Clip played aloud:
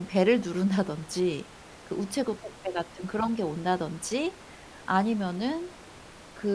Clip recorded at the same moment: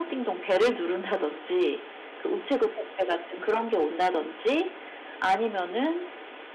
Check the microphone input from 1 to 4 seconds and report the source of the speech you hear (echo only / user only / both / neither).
echo only